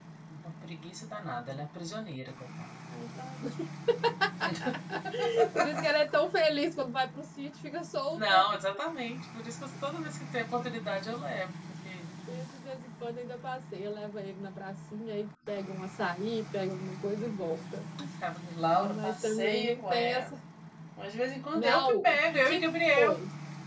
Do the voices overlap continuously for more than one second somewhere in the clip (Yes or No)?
Yes